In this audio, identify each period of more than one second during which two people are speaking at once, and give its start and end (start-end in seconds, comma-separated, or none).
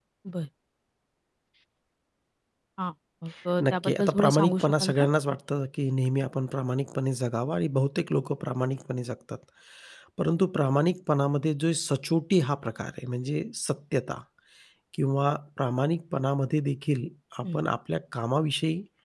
3.6-5.1